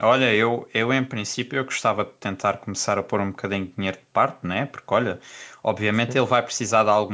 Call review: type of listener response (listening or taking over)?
listening